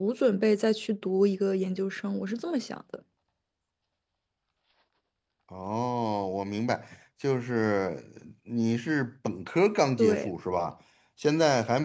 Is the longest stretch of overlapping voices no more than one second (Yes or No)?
Yes